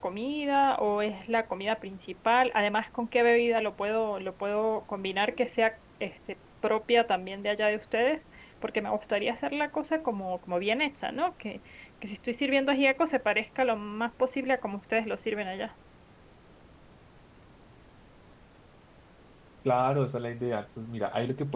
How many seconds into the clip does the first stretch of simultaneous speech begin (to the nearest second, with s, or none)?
none